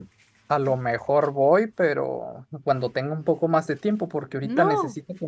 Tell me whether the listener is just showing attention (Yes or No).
Yes